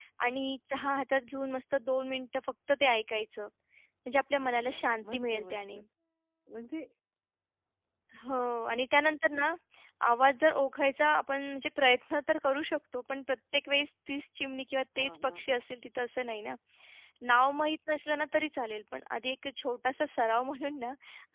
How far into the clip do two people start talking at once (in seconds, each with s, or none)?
4.4 s